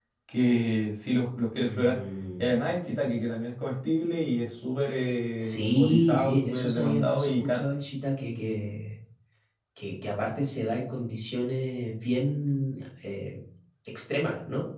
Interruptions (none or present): present